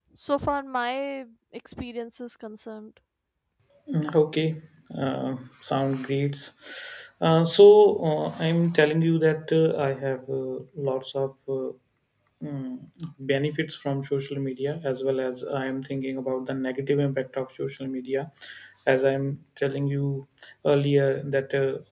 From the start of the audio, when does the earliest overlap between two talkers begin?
none

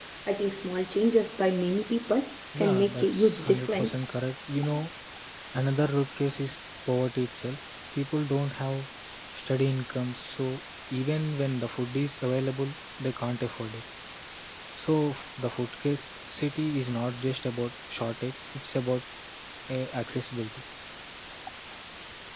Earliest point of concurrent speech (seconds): 2.5 s

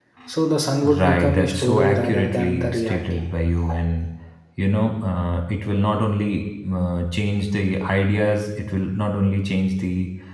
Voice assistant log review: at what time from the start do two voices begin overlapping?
1.0 s

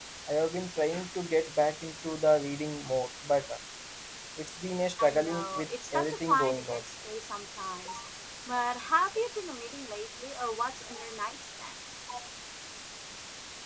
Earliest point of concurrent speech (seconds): 5.0 s

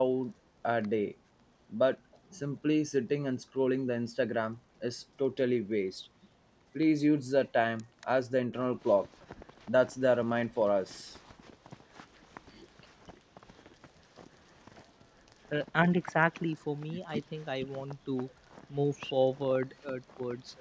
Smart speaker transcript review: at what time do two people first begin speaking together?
none

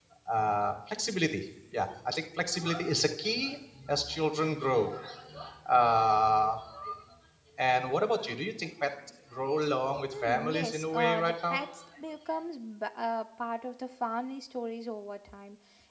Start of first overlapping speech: 10.0 s

